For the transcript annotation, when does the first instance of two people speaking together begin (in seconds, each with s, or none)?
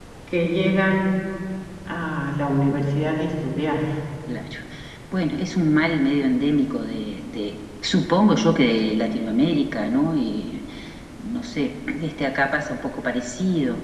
none